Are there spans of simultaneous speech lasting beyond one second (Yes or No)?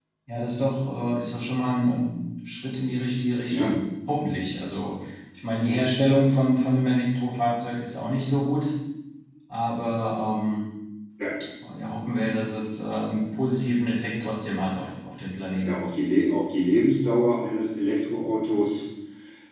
No